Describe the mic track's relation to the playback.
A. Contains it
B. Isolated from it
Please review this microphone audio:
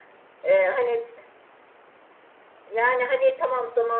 A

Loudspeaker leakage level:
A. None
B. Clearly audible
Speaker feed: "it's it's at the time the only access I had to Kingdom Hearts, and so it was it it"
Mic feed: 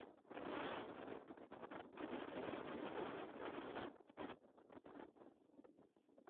A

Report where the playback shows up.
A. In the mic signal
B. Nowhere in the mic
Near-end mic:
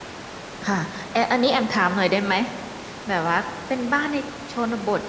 B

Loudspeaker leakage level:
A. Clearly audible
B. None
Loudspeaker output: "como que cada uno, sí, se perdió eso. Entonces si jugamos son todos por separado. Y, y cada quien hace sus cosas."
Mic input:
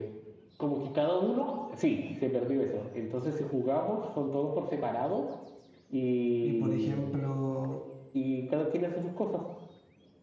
A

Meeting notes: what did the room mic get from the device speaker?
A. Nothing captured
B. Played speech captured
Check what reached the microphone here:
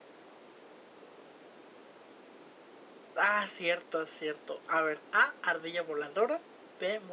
A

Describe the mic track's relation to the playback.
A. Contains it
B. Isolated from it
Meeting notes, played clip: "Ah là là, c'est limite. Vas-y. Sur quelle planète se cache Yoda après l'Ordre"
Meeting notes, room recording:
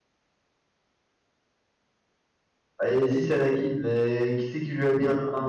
B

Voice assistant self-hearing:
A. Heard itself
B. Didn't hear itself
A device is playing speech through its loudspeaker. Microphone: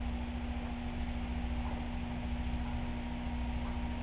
B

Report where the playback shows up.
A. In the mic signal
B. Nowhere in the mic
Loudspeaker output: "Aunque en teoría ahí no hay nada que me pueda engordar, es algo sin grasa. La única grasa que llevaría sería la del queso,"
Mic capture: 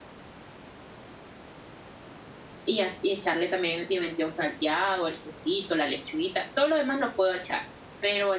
B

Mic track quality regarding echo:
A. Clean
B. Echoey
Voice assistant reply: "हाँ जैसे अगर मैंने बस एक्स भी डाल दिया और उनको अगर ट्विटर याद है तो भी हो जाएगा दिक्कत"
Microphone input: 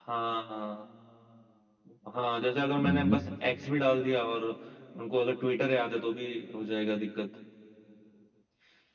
B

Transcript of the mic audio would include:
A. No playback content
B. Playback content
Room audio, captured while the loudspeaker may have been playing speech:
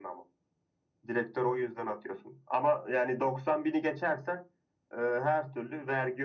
B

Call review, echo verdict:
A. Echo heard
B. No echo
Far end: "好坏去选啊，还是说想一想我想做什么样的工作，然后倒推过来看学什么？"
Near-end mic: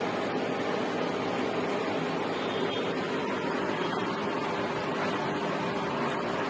B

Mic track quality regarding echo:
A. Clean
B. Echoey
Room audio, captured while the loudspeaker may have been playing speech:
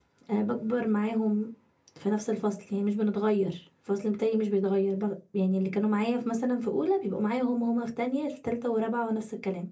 A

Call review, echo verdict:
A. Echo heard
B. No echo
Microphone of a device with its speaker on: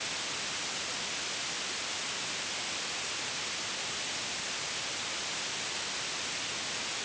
B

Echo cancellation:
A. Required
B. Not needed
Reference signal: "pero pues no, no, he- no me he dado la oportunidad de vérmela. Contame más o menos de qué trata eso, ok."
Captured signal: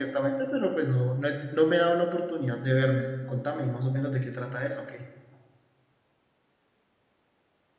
A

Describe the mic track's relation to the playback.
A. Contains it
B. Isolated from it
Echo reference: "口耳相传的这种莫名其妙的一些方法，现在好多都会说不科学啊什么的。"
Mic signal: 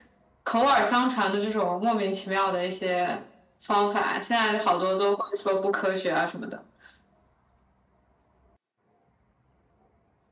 A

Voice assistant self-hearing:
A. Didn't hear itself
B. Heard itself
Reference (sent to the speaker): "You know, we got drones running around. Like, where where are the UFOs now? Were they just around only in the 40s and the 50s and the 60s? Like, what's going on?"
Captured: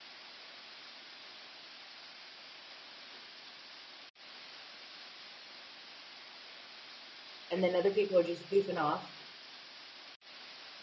A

